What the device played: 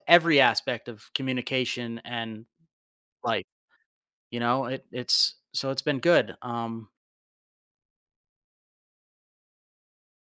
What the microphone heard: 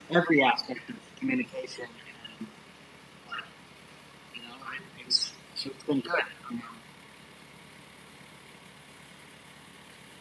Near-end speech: none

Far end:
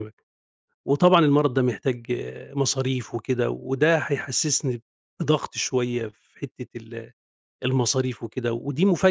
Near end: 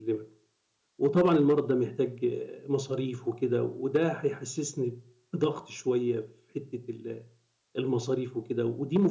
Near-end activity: none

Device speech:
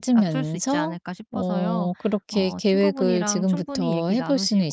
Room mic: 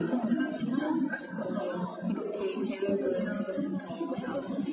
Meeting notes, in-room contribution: none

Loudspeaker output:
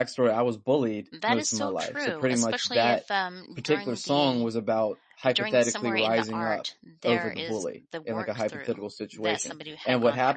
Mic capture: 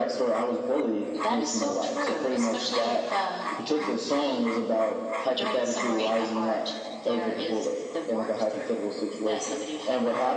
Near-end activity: none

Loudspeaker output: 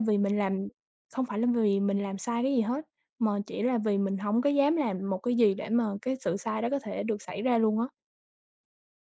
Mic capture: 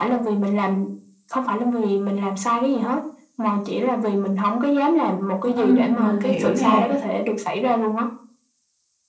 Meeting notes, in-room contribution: present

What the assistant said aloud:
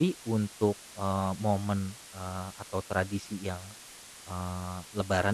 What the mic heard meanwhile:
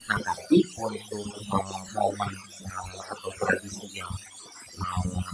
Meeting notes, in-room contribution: none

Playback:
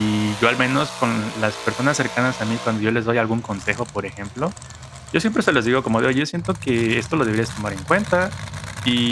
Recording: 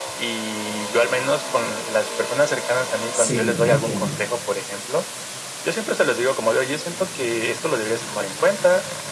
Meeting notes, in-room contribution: present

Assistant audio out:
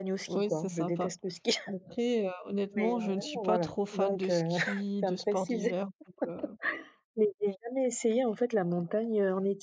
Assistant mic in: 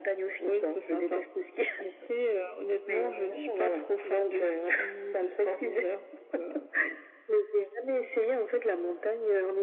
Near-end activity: none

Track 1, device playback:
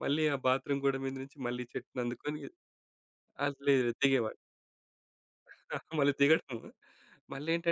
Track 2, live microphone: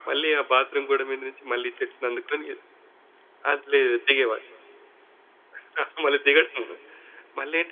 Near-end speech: none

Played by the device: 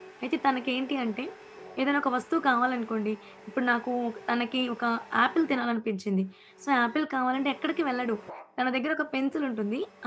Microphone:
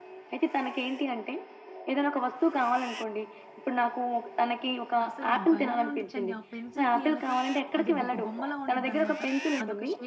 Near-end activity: present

